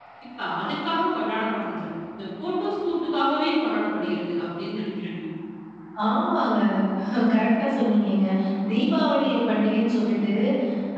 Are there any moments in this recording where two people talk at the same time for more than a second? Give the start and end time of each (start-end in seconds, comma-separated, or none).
none